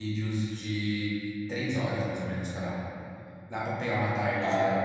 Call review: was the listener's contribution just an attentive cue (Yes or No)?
No